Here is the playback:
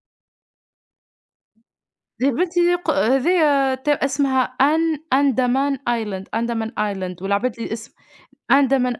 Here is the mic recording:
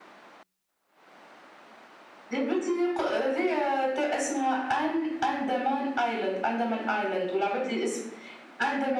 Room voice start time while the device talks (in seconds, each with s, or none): none